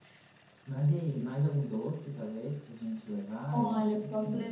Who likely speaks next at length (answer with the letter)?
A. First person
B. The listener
B